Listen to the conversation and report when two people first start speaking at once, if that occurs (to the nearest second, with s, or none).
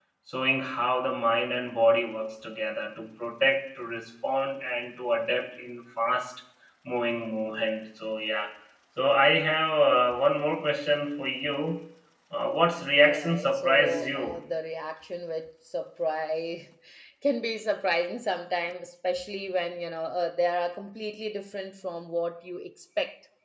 13 s